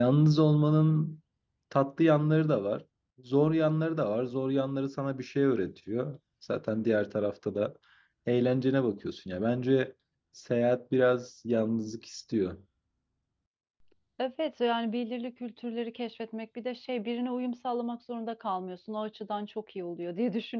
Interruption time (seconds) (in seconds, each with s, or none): none